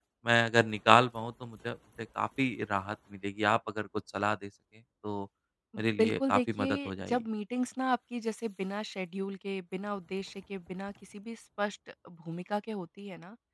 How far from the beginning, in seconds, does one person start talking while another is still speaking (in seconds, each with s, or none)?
6.0 s